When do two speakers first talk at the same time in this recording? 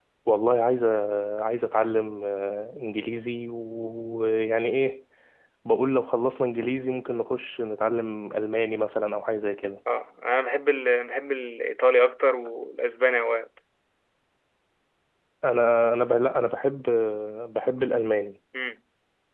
none

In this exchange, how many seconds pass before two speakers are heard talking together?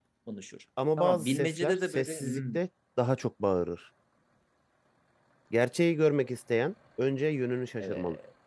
1.0 s

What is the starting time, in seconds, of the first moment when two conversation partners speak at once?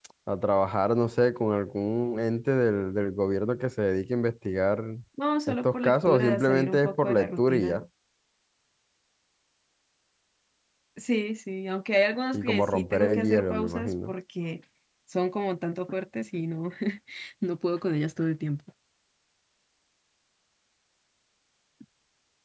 5.5 s

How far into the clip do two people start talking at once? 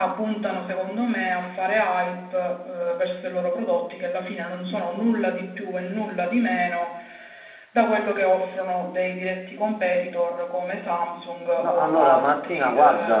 11.6 s

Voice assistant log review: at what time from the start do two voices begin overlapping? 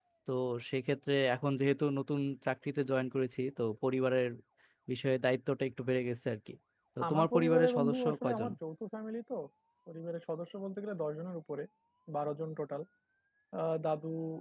7.1 s

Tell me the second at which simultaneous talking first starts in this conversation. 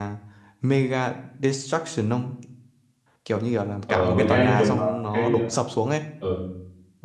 3.9 s

